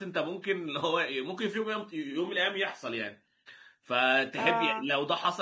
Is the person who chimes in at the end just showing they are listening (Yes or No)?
Yes